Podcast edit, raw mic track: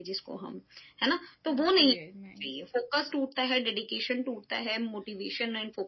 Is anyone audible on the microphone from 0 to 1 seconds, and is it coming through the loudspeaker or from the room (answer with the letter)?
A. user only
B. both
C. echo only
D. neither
C